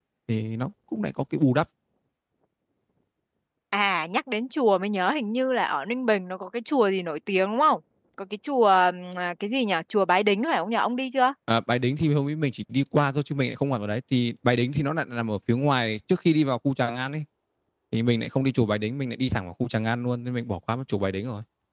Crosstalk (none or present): none